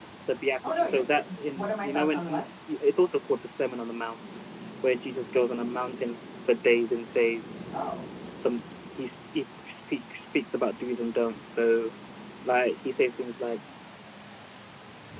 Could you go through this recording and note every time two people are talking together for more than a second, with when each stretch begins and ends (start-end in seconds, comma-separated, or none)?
0.7-2.4